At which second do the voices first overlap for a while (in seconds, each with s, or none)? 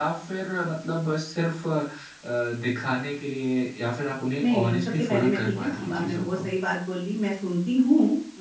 4.4 s